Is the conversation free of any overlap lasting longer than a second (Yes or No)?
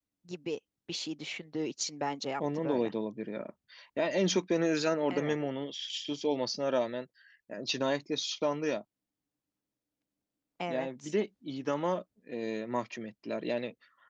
Yes